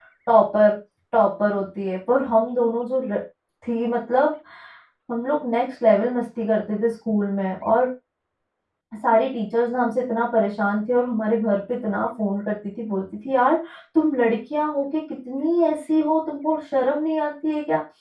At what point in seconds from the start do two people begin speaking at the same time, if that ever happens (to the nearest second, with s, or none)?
none